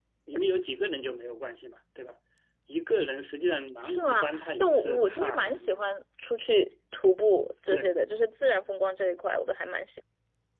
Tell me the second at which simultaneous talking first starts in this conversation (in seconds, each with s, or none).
3.8 s